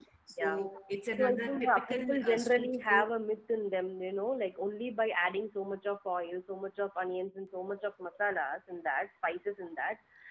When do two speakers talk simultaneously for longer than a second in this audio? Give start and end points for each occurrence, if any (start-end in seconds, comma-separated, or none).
1.2-3.0